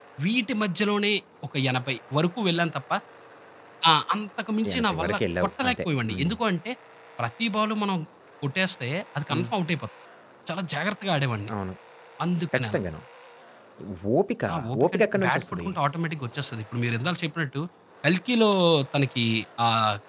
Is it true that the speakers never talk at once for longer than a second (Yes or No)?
No